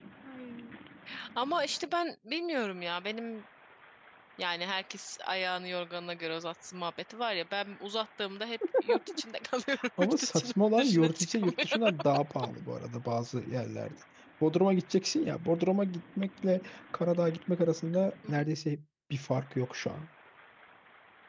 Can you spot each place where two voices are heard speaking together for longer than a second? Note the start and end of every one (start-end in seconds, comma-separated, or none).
10.0-11.8